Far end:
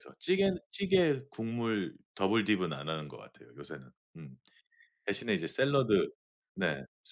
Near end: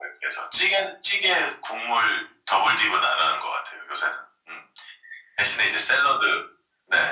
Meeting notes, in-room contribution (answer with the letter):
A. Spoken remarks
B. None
B